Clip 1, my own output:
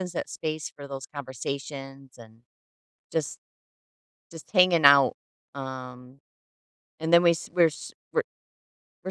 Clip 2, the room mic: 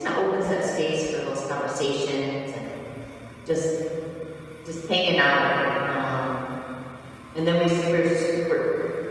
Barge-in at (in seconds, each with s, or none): none